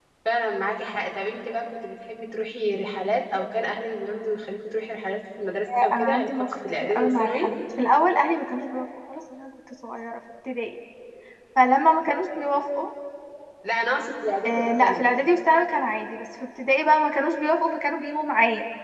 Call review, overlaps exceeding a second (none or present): present